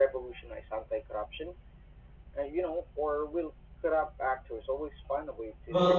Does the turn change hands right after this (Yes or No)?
Yes